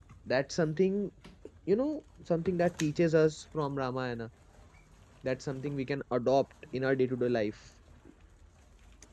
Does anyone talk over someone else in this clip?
No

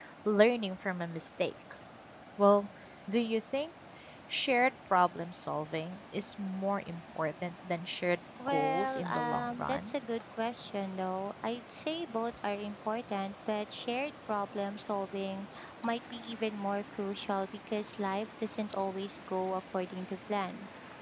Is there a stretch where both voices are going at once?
Yes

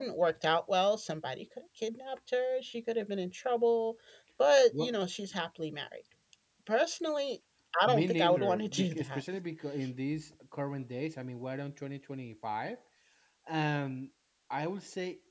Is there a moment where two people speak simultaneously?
Yes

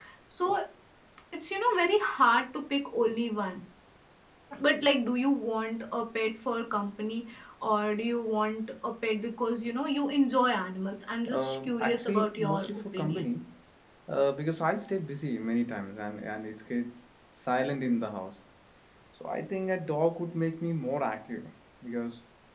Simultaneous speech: Yes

